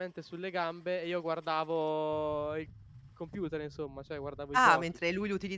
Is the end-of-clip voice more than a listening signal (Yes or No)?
Yes